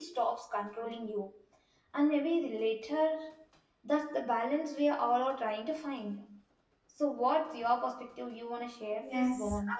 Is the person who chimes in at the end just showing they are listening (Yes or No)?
No